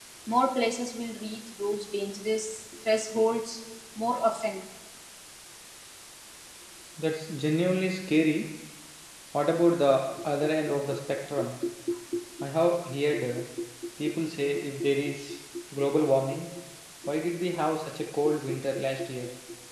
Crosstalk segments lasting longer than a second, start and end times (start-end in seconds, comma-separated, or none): none